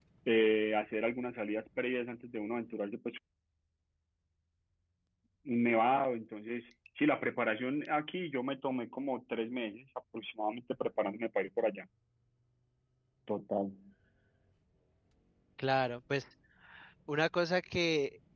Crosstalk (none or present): none